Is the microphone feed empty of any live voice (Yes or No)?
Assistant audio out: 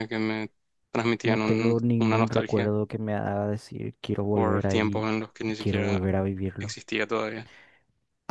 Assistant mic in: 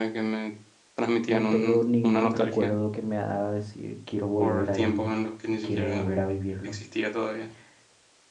No